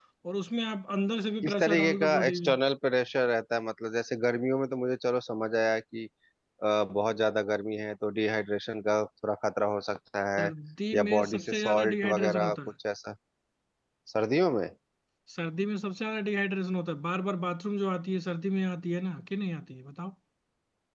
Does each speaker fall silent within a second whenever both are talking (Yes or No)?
No